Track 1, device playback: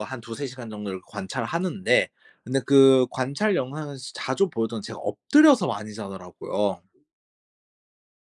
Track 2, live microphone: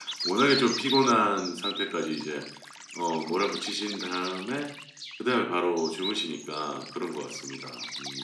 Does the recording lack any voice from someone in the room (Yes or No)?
No